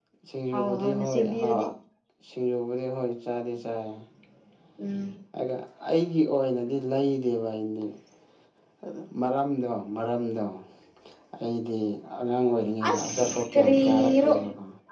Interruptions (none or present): present